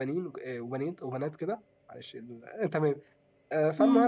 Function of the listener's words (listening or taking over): listening